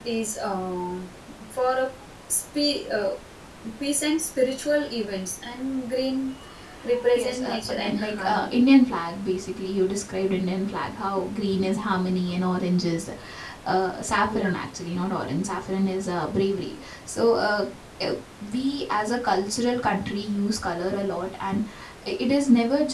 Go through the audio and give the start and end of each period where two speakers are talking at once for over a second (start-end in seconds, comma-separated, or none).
7.2-8.6